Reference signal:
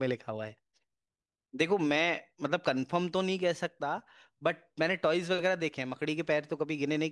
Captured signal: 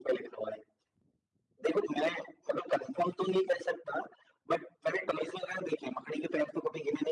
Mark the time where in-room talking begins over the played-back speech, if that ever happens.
none

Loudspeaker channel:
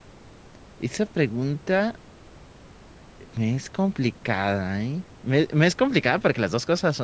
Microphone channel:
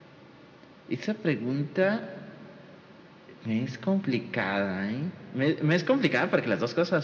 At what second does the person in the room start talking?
none

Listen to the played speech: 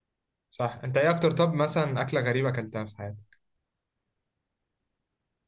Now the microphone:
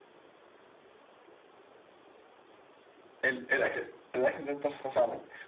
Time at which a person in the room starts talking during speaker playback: 3.2 s

